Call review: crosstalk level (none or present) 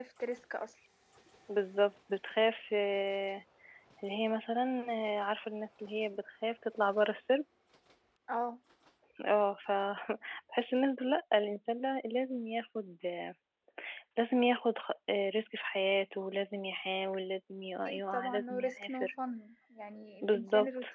present